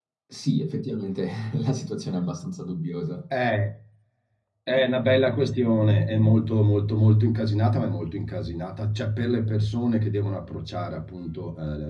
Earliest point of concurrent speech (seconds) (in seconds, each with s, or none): none